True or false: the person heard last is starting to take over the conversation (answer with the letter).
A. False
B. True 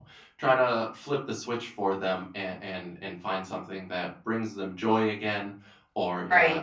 A